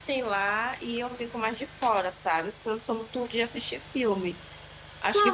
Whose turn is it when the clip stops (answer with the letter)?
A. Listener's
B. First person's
A